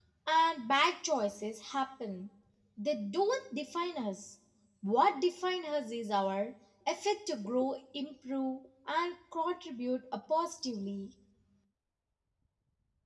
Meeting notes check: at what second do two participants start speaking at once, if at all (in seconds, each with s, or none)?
none